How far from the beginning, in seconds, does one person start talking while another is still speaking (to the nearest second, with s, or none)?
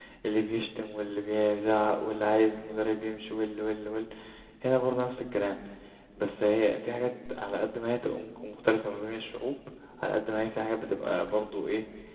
none